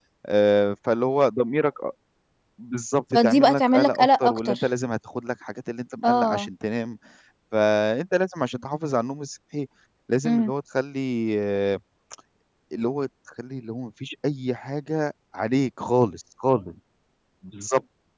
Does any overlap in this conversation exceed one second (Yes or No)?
Yes